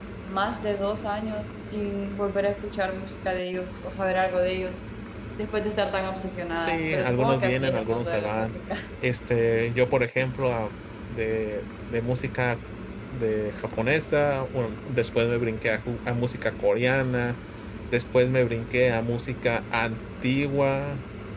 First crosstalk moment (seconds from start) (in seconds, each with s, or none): 6.6 s